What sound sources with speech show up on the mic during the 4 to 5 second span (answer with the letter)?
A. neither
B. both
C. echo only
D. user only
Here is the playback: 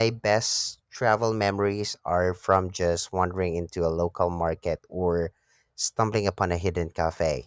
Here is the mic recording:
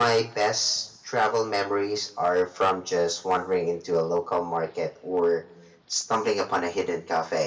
C